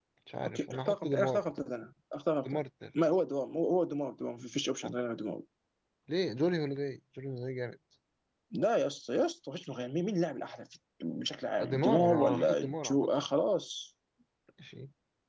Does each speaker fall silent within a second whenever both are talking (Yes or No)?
No